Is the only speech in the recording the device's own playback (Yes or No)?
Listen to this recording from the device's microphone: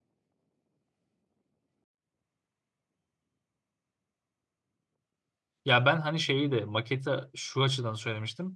No